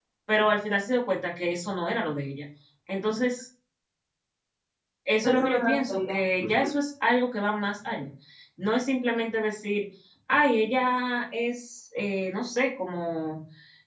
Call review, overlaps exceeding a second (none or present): present